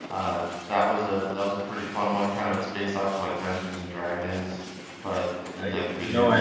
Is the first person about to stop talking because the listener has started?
Yes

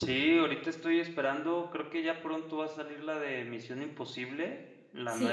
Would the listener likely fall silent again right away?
Yes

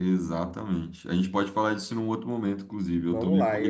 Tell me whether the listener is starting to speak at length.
Yes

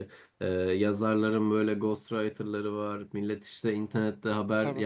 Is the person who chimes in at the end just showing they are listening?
Yes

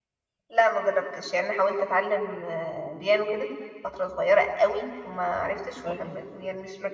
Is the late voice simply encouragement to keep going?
Yes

